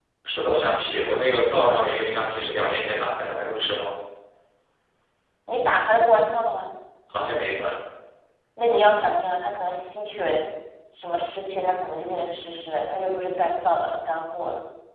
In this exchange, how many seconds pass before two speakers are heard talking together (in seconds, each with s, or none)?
none